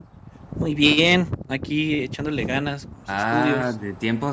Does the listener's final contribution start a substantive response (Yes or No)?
Yes